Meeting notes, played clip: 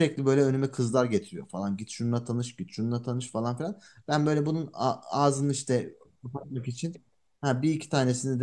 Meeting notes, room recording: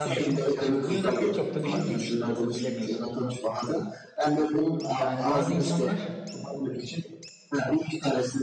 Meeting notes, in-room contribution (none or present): present